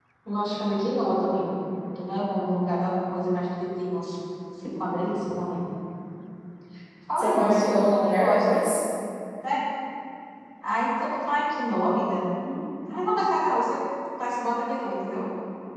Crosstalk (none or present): present